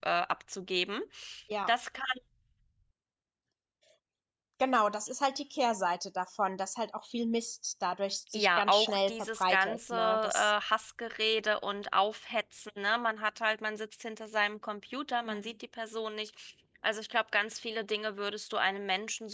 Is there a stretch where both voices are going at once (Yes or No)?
Yes